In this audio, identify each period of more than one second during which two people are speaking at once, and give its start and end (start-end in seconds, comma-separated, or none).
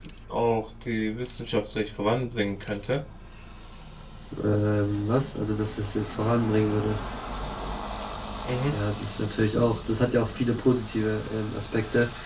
none